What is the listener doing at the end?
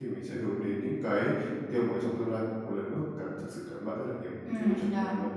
taking over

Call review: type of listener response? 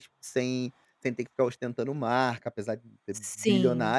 listening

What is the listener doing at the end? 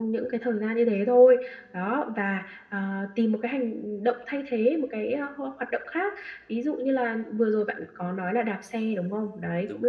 listening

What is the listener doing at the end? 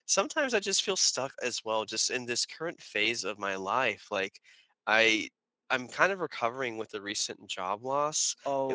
listening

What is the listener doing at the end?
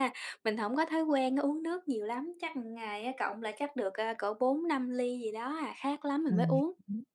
taking over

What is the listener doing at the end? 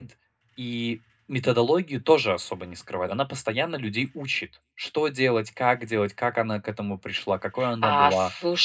taking over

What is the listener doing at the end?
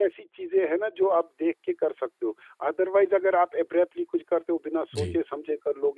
listening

